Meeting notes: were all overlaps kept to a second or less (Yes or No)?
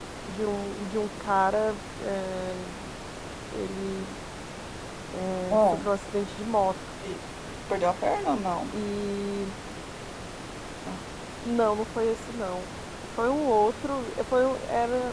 Yes